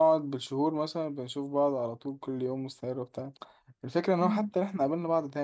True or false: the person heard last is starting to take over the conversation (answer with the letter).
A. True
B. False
B